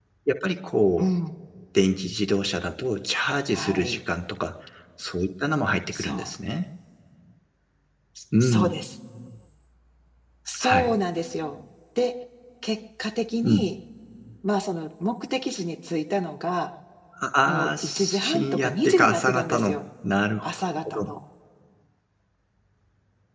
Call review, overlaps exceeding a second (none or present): present